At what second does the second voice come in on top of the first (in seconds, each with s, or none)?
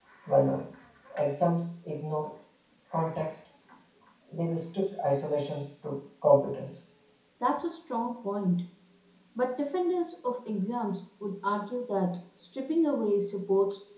none